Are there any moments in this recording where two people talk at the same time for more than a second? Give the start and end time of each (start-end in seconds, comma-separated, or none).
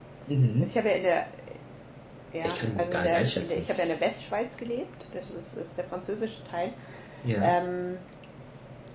2.4-3.7